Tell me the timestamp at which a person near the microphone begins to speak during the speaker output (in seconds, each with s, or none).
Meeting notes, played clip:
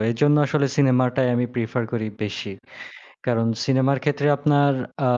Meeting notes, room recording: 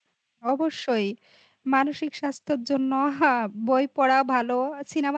0.5 s